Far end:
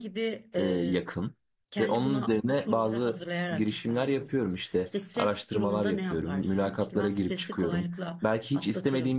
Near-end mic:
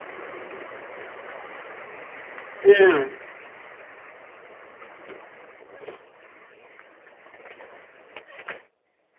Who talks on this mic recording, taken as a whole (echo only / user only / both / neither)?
user only